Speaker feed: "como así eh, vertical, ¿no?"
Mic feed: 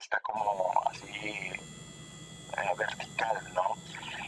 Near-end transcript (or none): none